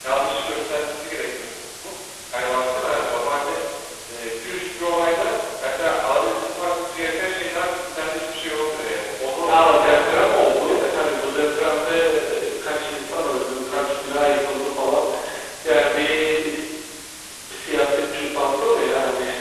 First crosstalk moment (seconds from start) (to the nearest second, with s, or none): 9 s